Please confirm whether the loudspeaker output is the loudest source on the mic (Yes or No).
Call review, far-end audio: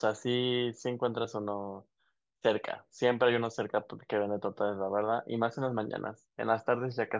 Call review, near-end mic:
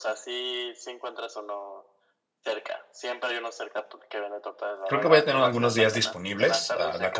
No